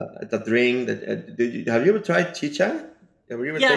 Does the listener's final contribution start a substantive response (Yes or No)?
Yes